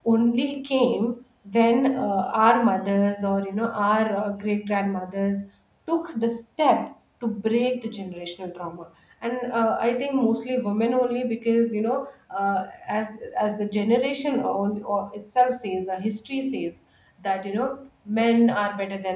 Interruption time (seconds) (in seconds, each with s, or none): none